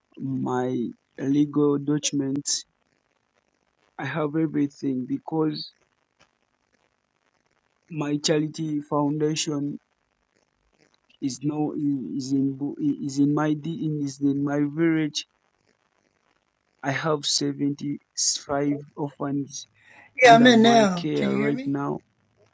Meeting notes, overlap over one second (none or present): present